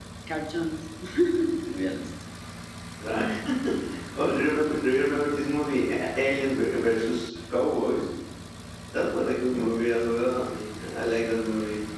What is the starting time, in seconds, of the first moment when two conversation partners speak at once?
none

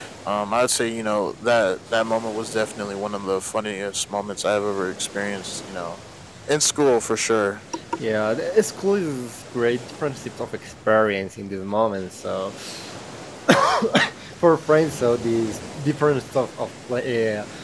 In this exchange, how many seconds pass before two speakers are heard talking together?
none

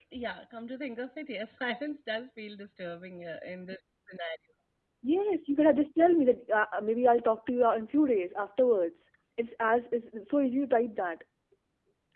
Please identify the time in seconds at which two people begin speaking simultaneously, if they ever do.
none

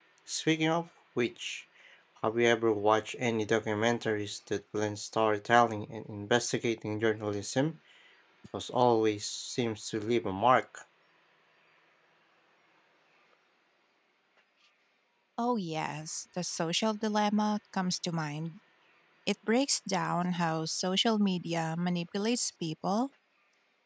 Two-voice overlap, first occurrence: none

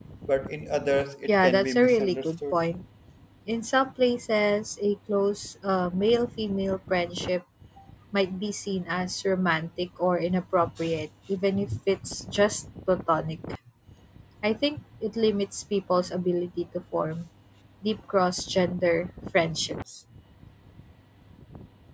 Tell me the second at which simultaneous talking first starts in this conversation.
1.3 s

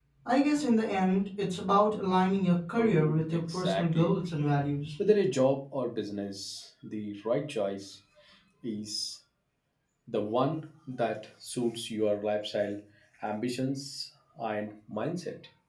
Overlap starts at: 2.8 s

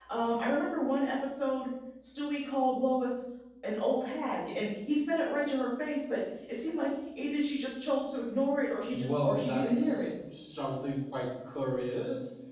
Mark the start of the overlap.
8.9 s

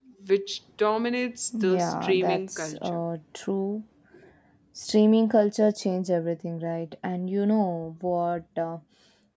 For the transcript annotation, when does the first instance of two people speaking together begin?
1.5 s

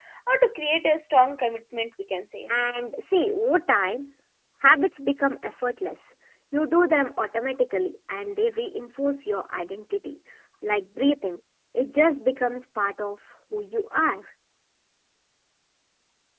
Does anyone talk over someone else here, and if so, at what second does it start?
none

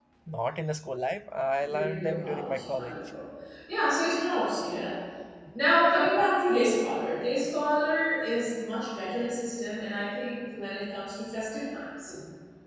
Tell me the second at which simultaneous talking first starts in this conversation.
1.6 s

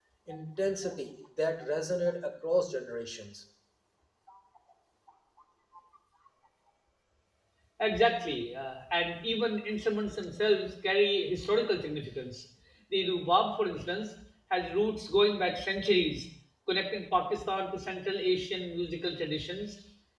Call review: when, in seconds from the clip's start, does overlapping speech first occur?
none

